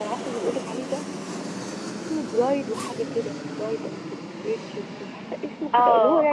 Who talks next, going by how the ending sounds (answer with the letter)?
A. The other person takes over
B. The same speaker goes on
A